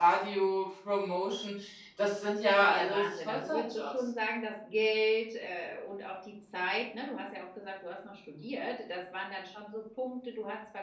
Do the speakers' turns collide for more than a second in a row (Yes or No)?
Yes